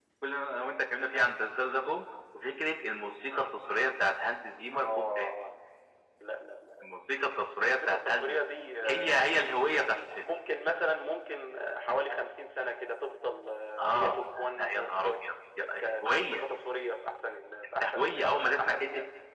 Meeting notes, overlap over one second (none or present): present